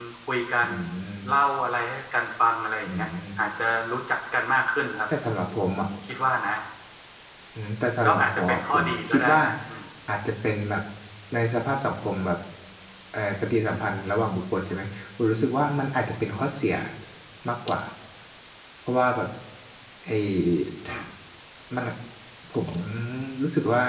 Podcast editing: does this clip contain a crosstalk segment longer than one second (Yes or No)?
Yes